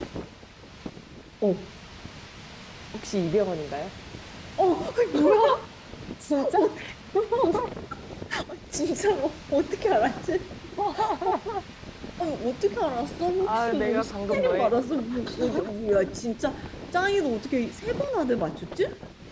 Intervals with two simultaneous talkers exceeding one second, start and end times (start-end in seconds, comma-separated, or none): 13.4-14.7